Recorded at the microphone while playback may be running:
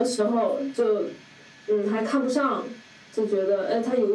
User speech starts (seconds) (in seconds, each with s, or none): none